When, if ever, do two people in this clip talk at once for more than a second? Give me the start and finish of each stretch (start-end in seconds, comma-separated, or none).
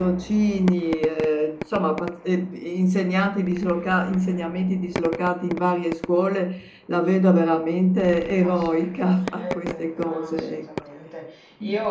8.4-10.6